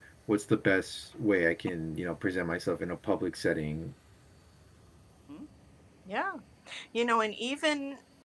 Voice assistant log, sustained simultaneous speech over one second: none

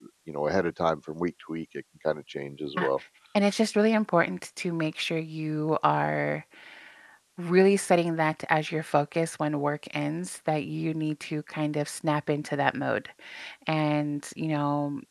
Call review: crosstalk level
none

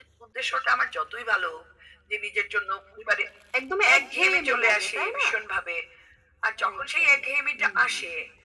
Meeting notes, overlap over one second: present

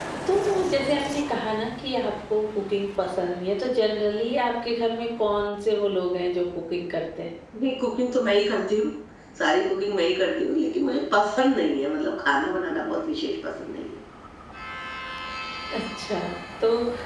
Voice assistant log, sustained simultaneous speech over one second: none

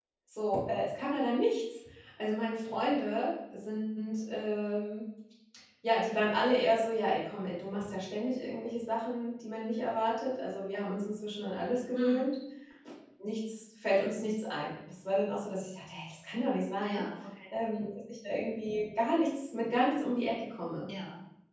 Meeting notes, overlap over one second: none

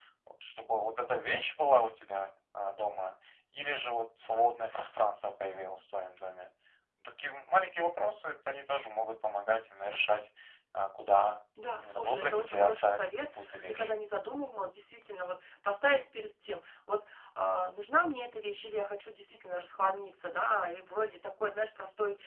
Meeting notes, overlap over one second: present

